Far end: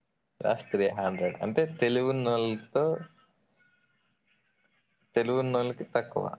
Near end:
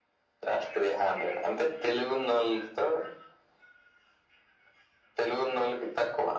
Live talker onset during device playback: none

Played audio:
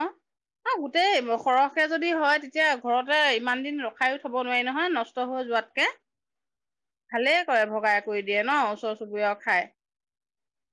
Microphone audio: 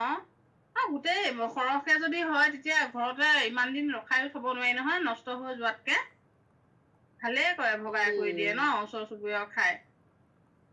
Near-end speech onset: 8 s

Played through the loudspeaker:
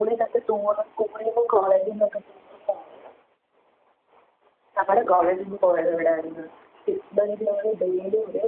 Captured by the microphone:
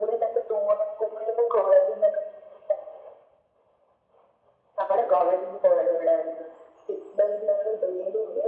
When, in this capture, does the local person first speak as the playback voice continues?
none

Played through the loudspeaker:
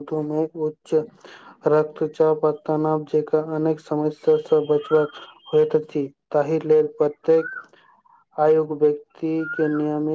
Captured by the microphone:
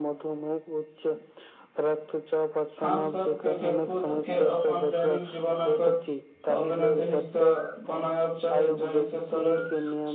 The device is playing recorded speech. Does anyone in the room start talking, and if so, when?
3 s

